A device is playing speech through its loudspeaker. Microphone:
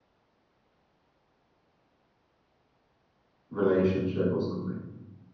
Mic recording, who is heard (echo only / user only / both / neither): user only